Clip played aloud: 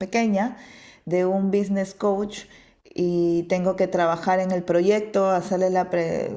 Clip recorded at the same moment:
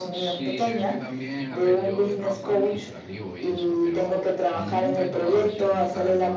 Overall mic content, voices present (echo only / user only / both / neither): both